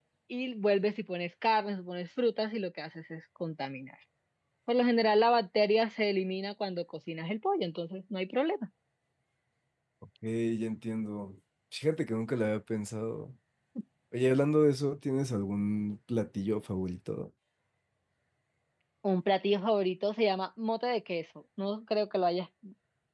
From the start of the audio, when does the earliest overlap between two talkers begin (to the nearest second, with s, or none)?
none